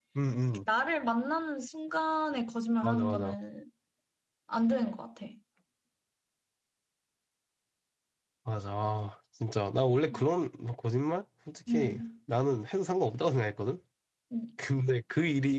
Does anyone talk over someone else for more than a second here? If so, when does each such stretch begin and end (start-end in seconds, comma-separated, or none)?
none